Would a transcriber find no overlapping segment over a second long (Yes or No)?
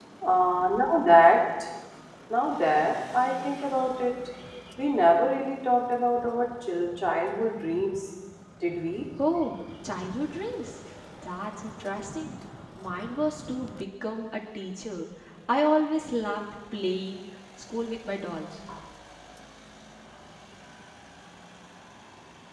Yes